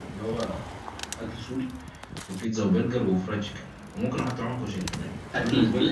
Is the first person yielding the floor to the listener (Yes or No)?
Yes